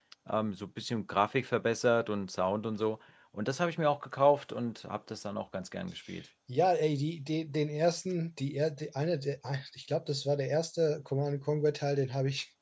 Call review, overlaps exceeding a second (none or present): none